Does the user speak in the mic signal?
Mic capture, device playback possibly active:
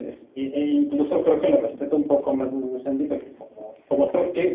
No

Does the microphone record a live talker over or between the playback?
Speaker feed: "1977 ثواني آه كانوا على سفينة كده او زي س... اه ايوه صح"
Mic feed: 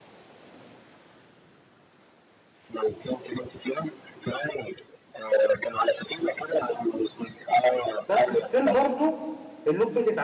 Yes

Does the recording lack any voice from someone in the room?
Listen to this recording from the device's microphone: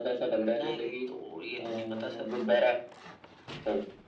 Yes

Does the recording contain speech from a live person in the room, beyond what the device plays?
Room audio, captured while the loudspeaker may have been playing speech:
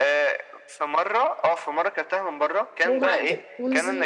Yes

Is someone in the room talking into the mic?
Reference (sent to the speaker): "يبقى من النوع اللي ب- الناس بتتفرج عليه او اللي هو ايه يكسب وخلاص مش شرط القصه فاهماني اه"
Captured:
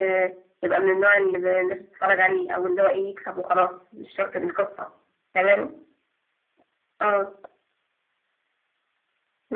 No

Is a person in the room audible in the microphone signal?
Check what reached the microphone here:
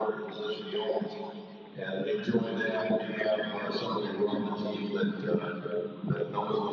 No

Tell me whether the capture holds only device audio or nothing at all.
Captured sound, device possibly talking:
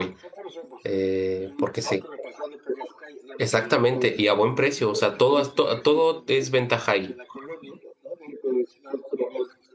No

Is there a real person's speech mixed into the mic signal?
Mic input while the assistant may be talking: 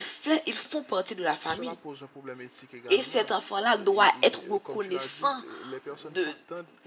Yes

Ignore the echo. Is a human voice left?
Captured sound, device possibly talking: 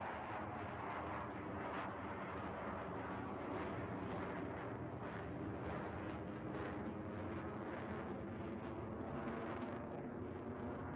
No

